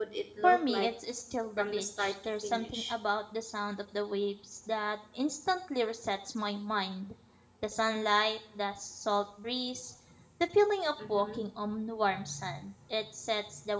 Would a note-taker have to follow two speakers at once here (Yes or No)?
Yes